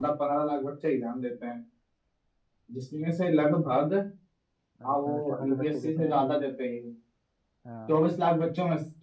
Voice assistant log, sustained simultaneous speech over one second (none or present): present